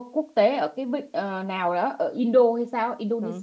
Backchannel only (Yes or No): No